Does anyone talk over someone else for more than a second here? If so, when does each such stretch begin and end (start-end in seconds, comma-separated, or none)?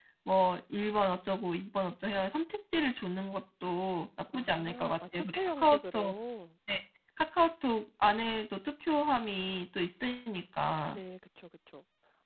4.3-6.1